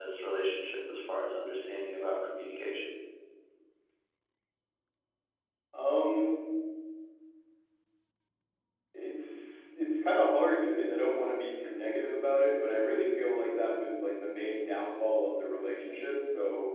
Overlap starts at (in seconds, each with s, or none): none